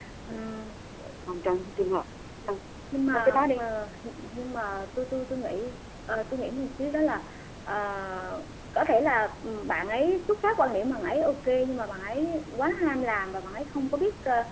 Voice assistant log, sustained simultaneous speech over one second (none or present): none